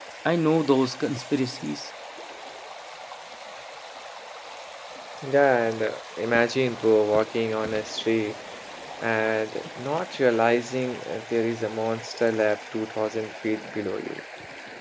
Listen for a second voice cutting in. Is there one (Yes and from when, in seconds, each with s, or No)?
No